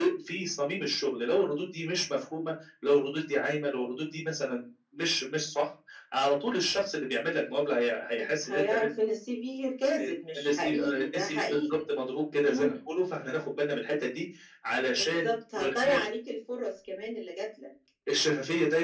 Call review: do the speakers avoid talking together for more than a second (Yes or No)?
No